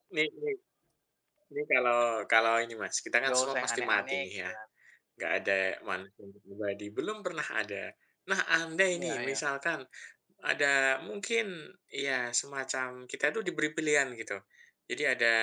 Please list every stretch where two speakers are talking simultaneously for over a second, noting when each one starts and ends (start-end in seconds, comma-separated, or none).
3.2-4.5